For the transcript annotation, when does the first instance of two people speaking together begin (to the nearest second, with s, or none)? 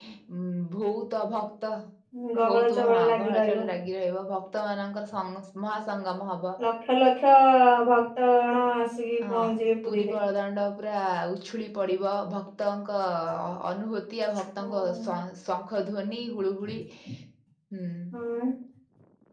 2 s